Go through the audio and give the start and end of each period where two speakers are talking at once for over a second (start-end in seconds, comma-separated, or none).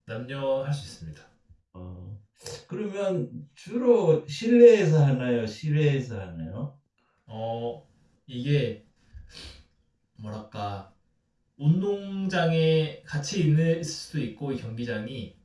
none